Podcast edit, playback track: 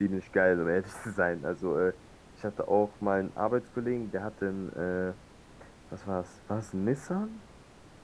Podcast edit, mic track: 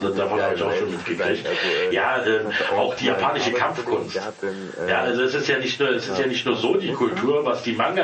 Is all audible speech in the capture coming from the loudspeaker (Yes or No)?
No